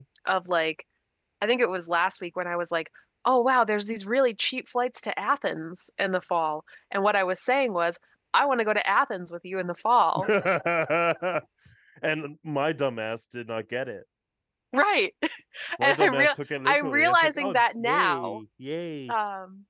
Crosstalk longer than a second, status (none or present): present